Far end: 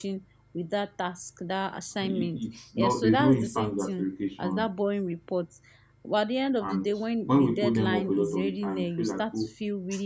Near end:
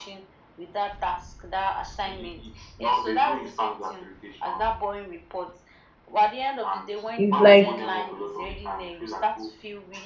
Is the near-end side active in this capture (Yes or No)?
Yes